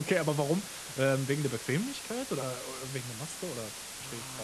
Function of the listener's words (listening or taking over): taking over